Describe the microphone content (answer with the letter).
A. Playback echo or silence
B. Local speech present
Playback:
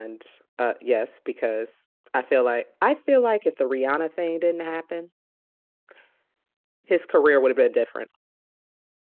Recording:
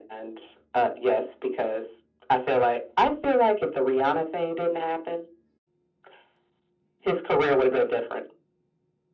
A